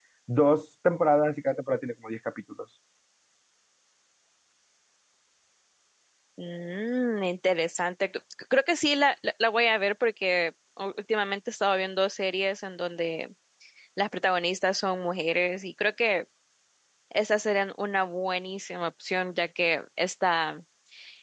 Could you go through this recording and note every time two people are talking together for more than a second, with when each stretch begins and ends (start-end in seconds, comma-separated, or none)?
none